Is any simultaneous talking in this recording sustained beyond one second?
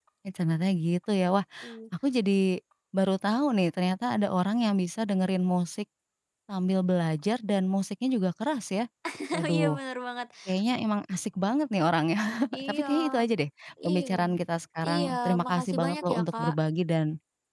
Yes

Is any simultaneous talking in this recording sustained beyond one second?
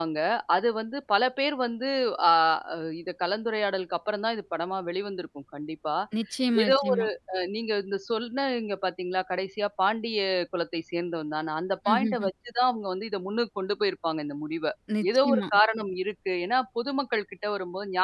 No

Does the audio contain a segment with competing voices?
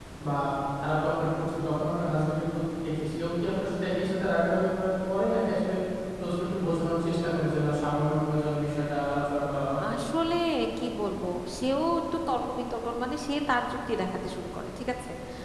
No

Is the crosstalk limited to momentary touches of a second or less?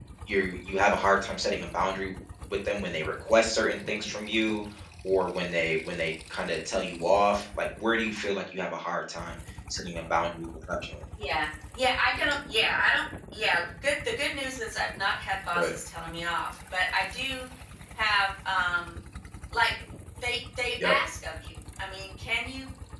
Yes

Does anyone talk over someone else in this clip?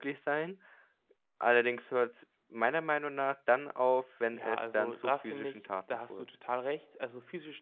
Yes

